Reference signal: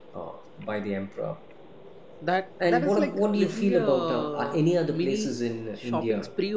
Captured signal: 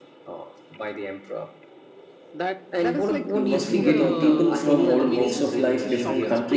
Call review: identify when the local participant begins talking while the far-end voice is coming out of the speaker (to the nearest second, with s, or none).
3 s